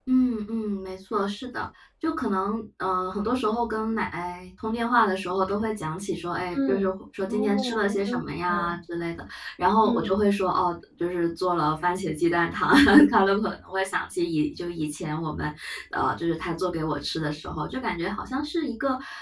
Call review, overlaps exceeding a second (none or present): present